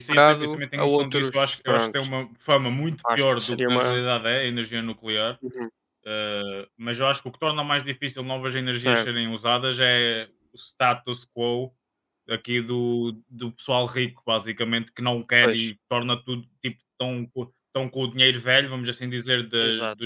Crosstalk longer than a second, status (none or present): present